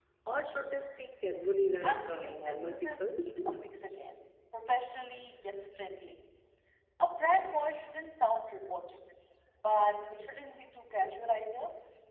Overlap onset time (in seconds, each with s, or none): 1.8 s